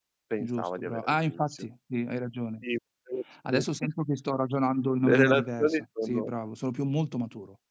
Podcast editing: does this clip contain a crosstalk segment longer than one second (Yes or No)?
Yes